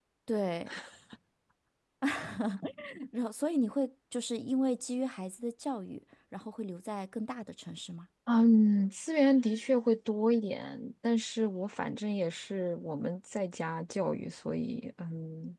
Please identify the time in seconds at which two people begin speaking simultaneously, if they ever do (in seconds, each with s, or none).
none